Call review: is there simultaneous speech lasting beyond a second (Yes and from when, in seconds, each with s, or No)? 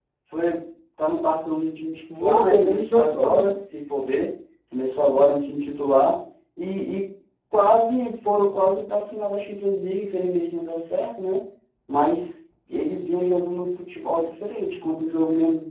Yes, from 2.2 s